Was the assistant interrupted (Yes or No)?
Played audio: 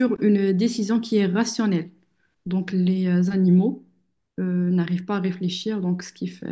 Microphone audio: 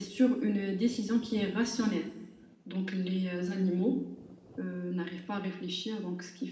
No